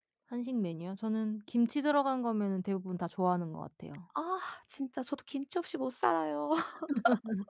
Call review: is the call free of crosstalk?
Yes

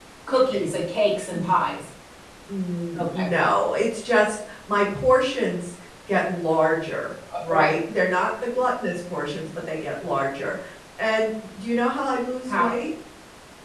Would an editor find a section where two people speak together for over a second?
No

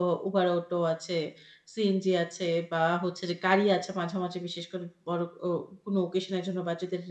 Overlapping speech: No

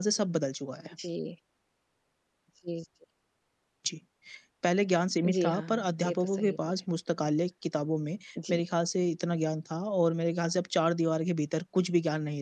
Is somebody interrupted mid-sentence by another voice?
Yes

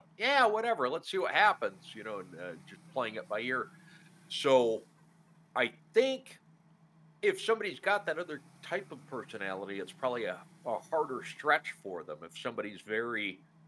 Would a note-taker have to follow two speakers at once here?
No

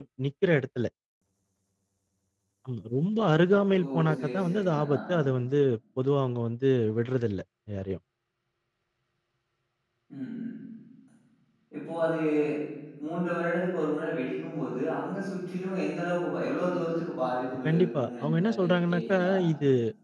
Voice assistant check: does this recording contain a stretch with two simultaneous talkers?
Yes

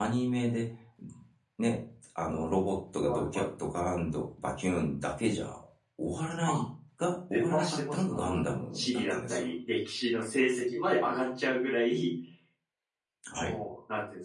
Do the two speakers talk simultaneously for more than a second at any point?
Yes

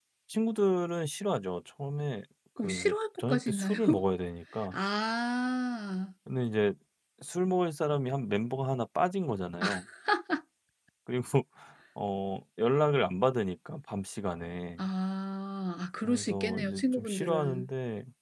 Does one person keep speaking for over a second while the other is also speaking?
Yes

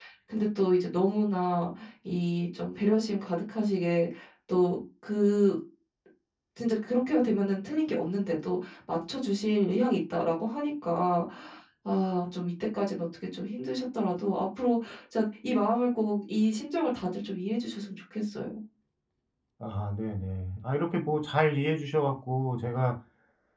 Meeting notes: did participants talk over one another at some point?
No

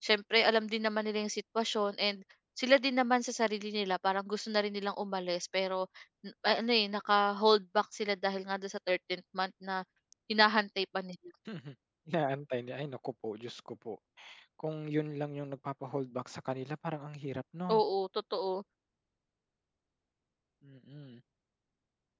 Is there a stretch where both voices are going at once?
No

